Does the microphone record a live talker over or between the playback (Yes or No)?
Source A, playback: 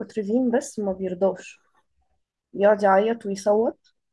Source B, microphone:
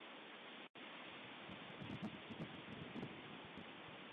No